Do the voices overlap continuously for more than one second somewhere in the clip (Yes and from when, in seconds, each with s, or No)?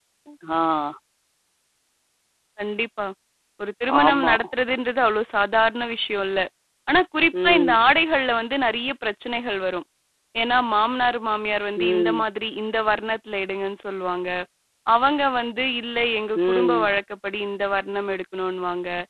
No